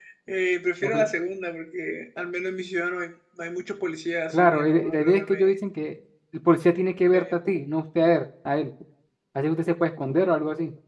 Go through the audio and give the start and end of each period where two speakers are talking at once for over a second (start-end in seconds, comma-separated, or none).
4.3-5.6